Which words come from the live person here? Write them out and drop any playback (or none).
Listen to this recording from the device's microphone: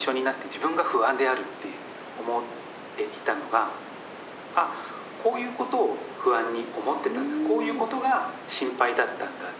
うーん、